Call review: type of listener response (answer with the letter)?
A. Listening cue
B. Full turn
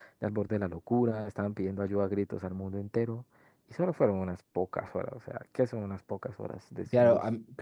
B